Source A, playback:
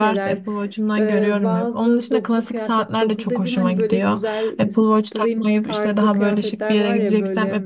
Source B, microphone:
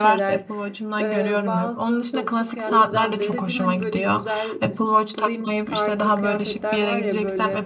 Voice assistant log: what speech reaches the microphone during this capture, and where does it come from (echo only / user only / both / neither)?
both